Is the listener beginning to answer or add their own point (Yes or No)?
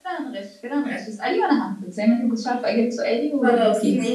Yes